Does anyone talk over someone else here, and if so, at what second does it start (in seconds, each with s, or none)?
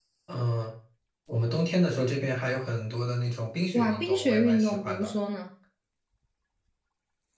3.7 s